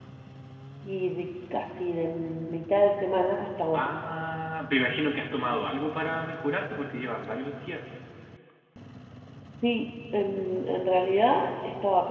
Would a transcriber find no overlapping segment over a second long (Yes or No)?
Yes